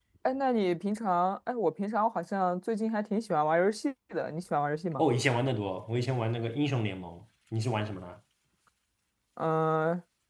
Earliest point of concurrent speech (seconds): none

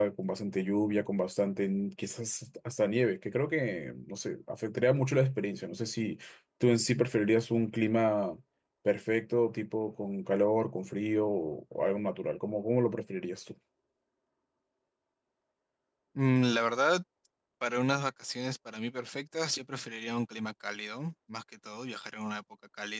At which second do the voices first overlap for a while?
none

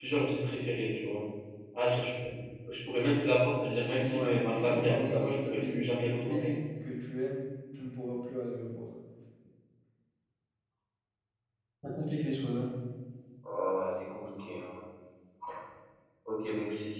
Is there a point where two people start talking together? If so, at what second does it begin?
4.1 s

